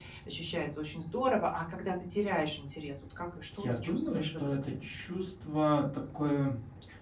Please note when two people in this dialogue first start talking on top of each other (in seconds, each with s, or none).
3.6 s